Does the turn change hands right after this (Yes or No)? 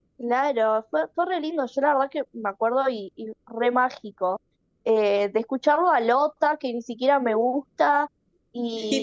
No